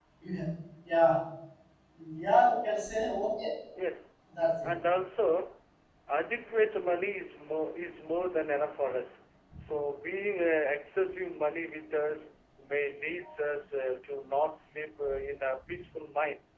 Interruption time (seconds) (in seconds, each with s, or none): none